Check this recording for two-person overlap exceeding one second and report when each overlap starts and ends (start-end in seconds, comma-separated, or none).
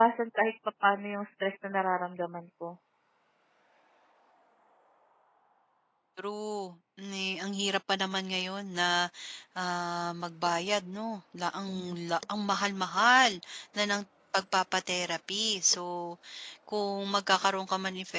none